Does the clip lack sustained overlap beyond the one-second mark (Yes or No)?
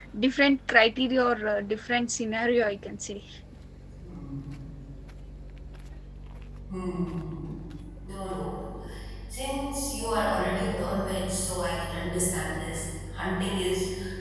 Yes